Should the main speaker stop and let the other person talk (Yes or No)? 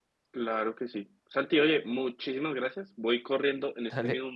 No